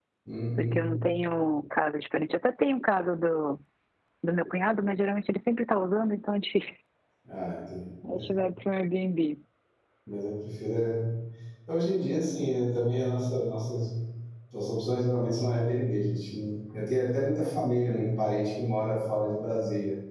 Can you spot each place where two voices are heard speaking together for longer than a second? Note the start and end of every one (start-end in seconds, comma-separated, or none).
none